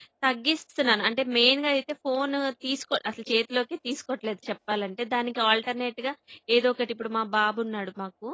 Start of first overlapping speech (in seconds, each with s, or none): none